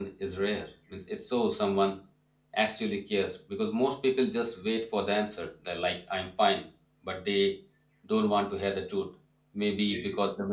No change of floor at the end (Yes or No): Yes